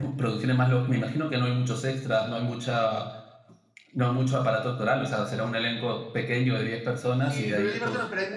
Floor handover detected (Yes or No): Yes